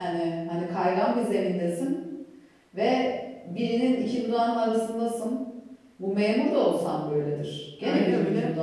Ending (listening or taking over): listening